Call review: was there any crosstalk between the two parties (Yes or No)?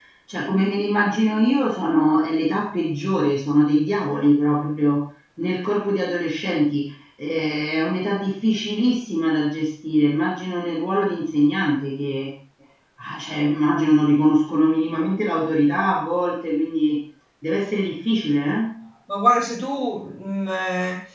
No